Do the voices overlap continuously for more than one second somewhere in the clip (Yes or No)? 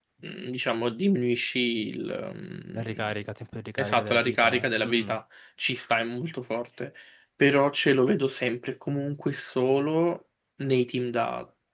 Yes